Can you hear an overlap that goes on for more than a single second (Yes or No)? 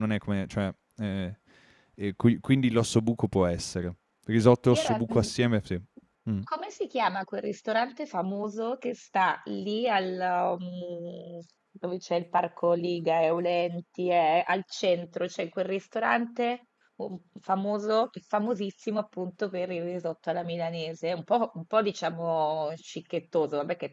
No